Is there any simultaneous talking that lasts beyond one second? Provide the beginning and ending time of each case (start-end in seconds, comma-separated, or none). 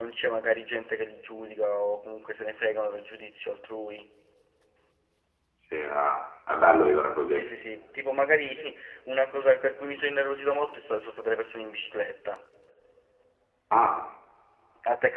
none